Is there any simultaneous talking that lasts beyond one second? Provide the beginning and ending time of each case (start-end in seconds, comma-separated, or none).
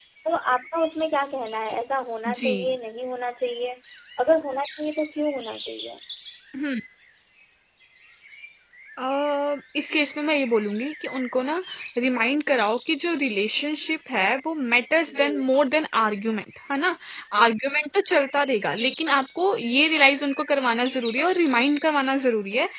none